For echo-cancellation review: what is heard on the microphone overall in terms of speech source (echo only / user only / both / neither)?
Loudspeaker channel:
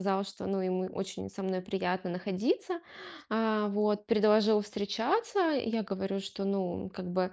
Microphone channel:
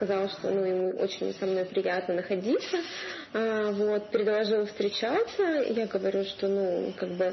echo only